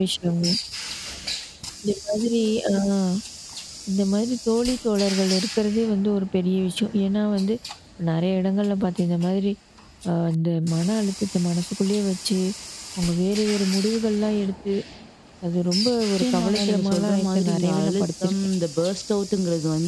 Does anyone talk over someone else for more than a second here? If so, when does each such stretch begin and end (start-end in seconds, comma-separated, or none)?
16.2-18.3